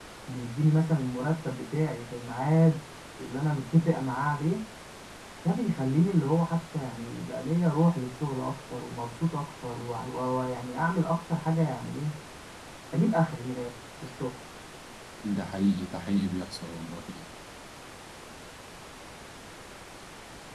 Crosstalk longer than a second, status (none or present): none